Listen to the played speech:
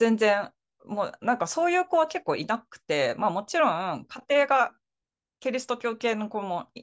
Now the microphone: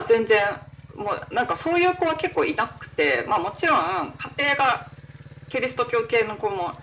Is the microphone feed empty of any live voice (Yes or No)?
Yes